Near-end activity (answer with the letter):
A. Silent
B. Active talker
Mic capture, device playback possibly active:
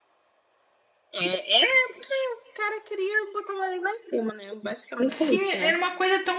B